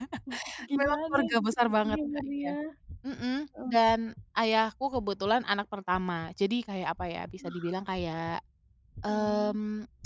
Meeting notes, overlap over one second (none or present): present